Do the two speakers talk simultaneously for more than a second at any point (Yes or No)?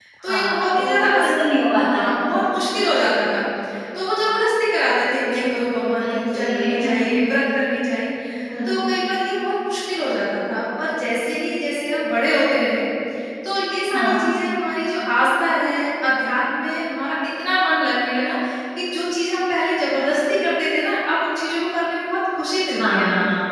Yes